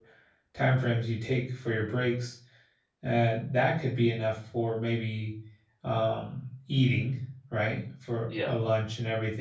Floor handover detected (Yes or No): No